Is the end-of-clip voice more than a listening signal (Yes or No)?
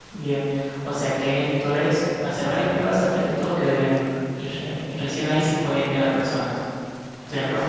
Yes